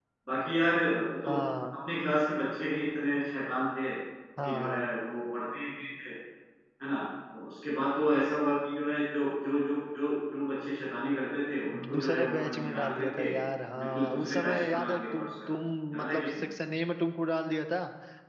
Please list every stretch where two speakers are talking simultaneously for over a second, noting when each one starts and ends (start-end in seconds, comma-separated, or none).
11.9-13.3, 13.8-15.3